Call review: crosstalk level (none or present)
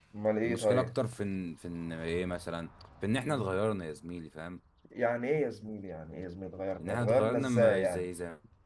present